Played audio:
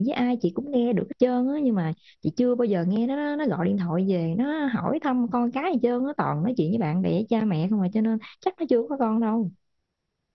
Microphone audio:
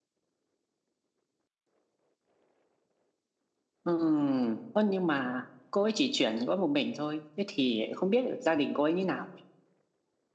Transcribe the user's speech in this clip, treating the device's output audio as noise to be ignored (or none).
Ừm, ơ nhưng mà cô ấy chỉ chuyển có một mình thôi thế thì không biết được gia đình cô ấy như nào